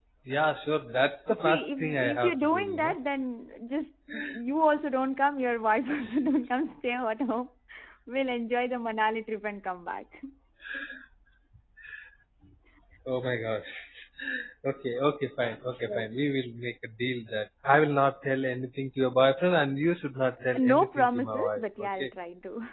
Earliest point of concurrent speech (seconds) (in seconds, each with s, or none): 1.4 s